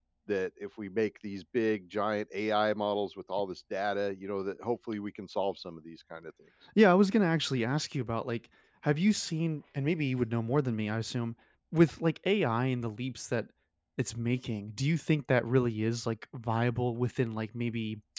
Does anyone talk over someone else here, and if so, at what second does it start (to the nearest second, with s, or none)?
none